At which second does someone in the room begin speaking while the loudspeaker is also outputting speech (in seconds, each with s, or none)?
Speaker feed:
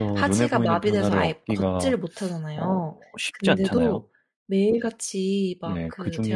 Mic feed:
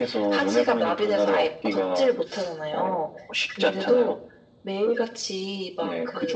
none